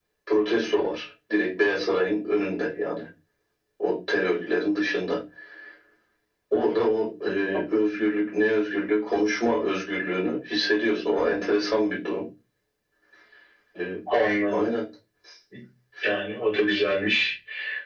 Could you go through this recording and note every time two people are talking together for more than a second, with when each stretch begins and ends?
none

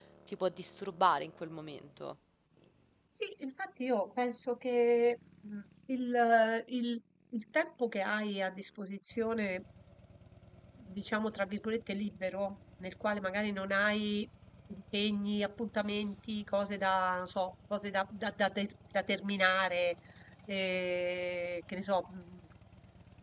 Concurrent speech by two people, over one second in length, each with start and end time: none

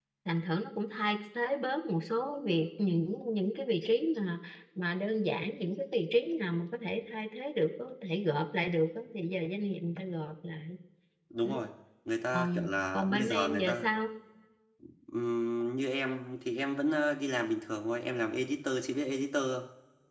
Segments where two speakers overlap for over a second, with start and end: 12.3-13.9

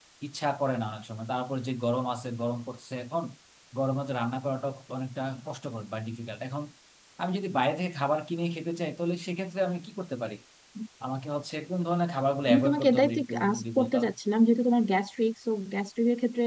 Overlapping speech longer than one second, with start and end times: 12.5-14.1

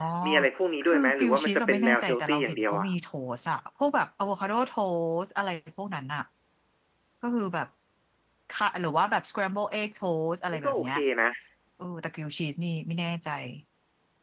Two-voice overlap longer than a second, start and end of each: 0.8-2.9

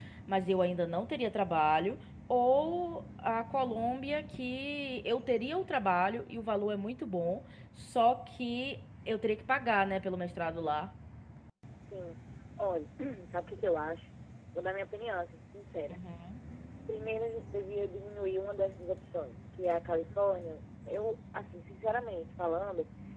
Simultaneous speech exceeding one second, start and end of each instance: none

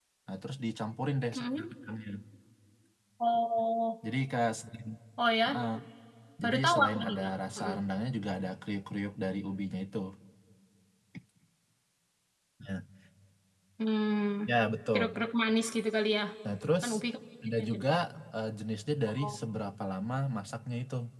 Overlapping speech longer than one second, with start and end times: 6.4-7.8

